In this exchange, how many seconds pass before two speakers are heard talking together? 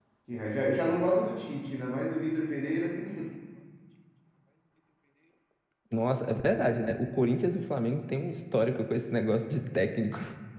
none

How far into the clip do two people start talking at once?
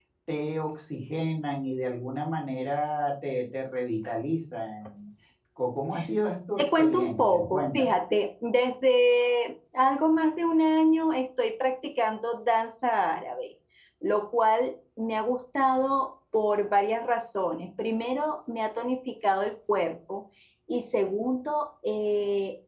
6.6 s

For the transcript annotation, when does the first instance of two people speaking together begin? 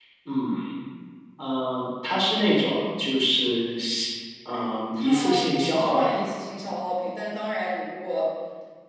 5.0 s

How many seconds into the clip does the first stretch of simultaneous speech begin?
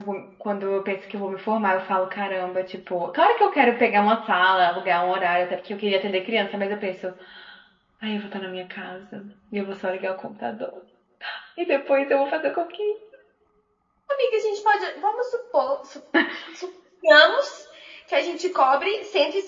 none

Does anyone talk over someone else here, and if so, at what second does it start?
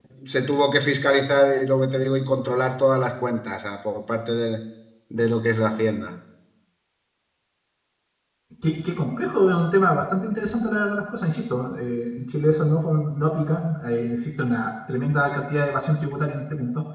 none

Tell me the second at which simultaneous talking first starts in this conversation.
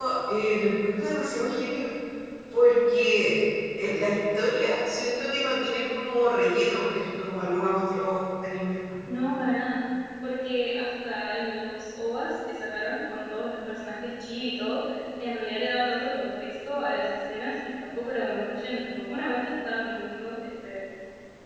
none

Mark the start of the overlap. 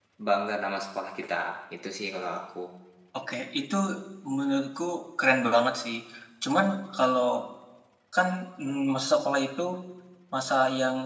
none

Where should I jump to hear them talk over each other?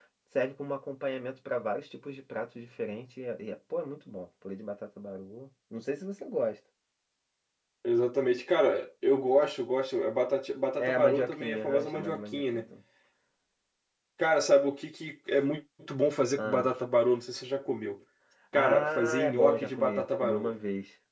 10.8 s

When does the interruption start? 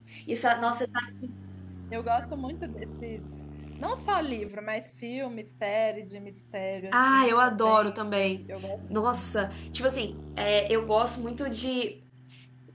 6.9 s

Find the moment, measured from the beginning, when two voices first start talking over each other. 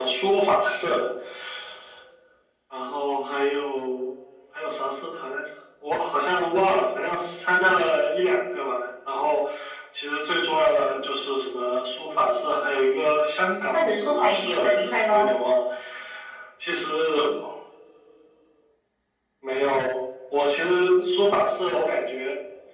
13.7 s

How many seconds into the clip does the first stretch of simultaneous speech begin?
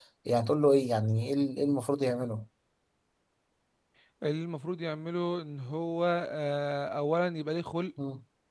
none

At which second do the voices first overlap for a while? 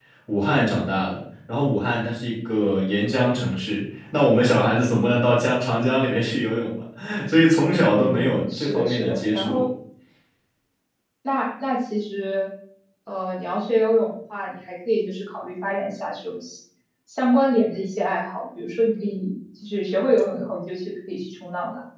7.9 s

